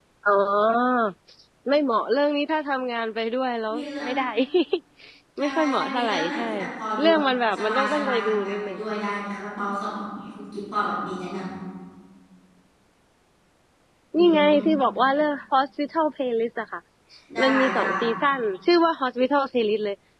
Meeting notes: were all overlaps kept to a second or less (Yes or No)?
No